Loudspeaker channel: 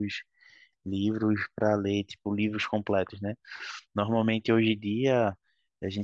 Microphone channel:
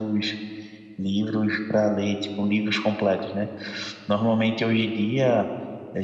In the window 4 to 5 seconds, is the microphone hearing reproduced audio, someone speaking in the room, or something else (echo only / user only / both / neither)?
echo only